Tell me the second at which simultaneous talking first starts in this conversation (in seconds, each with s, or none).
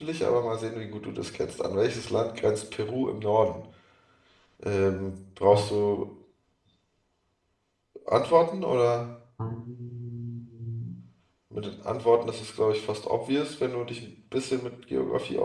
none